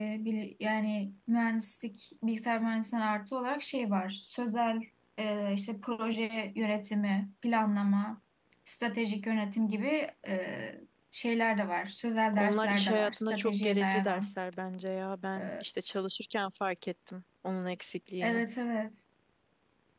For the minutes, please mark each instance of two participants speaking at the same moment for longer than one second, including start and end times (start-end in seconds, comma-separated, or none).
12.3-14.3